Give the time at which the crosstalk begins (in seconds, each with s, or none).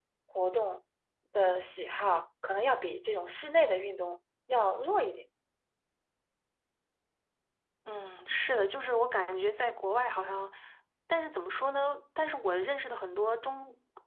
none